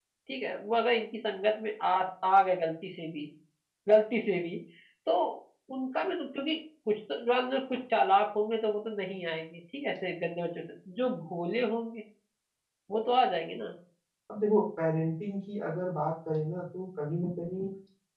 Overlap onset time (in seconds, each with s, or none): none